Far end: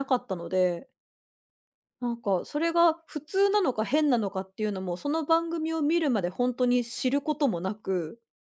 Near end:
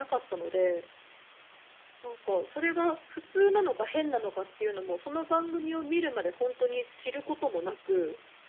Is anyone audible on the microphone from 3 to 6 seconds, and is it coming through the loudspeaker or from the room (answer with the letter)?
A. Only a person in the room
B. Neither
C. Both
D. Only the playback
D